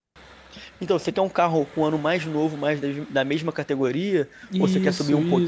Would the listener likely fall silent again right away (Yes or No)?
No